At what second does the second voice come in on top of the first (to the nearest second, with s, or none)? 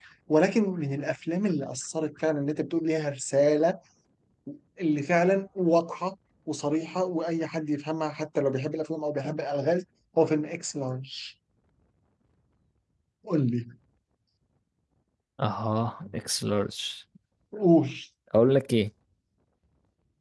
none